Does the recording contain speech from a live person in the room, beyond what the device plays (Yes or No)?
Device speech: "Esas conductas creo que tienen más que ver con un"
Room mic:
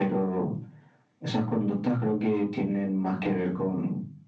No